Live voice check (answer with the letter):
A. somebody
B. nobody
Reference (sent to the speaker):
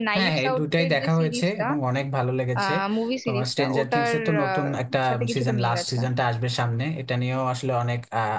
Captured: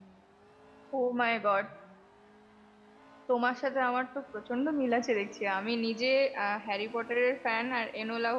A